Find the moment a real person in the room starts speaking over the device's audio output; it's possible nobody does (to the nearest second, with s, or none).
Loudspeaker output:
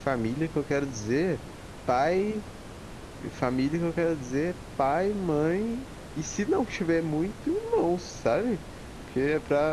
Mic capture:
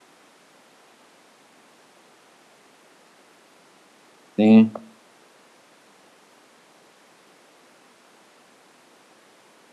4 s